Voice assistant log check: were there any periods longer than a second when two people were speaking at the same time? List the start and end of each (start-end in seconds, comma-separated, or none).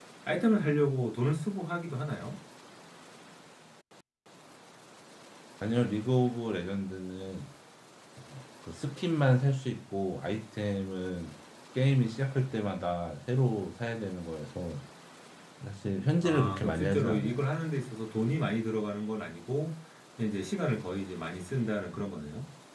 16.2-17.4